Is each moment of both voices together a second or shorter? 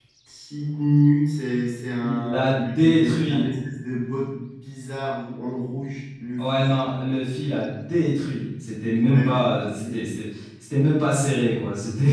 No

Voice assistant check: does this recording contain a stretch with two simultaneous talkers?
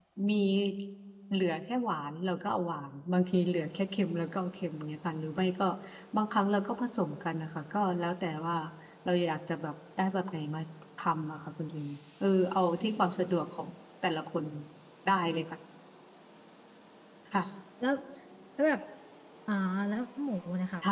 No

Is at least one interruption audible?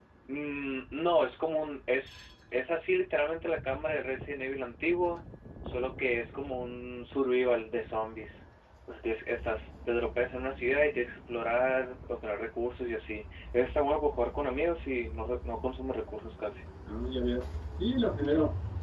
No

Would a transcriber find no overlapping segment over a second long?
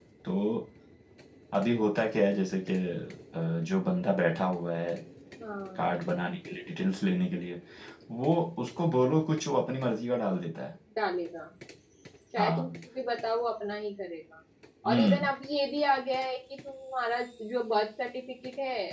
Yes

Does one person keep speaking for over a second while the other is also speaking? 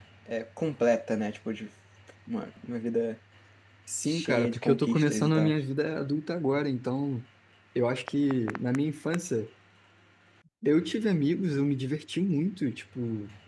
Yes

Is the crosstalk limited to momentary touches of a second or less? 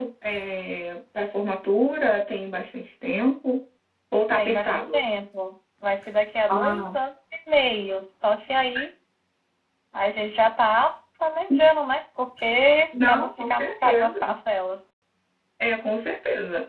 No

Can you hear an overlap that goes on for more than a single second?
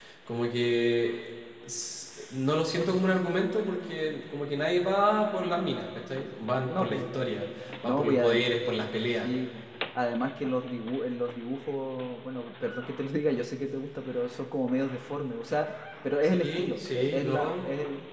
Yes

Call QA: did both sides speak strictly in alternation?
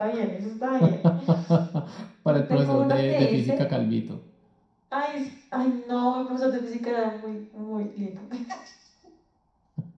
No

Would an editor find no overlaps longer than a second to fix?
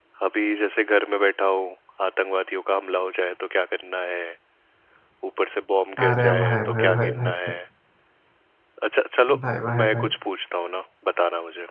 No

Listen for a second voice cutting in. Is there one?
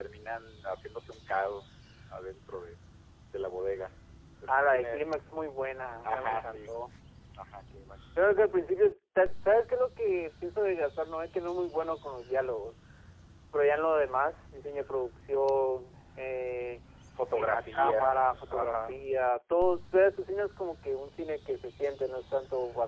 Yes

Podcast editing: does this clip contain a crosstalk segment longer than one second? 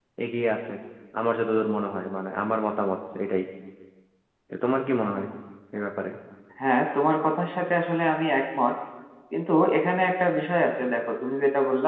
No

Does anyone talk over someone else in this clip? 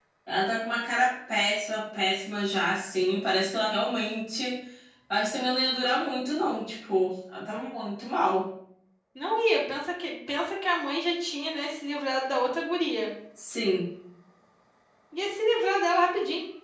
No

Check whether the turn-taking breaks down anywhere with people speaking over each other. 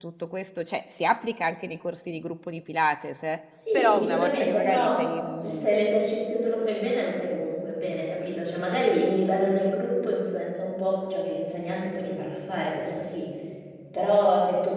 Yes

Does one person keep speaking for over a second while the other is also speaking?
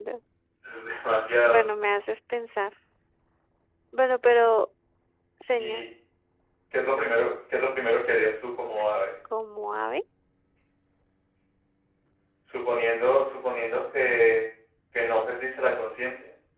No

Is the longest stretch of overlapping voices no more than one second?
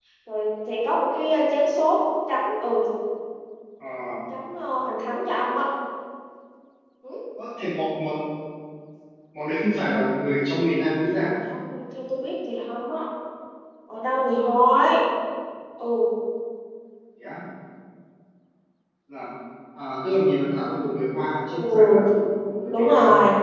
Yes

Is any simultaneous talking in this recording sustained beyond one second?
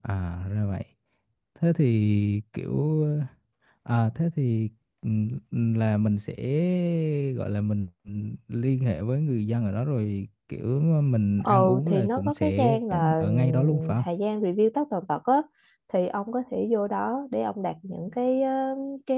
Yes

